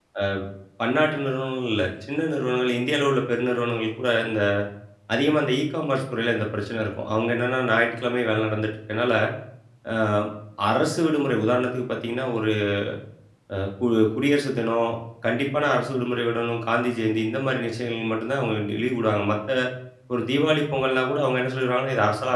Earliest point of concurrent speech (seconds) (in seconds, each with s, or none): none